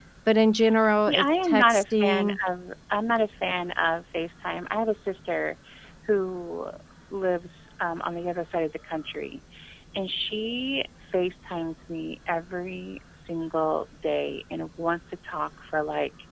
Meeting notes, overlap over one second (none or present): present